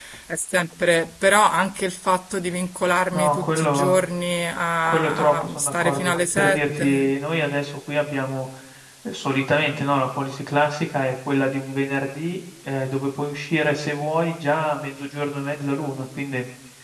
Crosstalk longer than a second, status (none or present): present